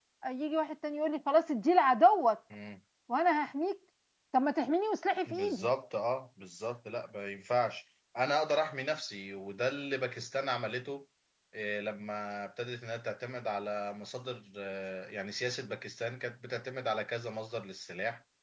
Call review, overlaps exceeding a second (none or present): none